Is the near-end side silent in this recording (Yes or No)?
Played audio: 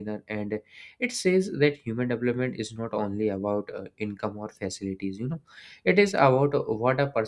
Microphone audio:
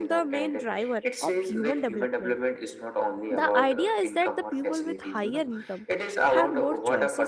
No